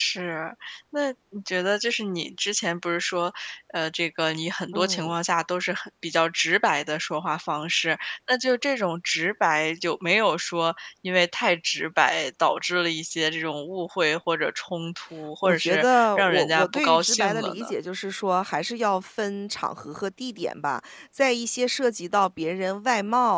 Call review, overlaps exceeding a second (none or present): present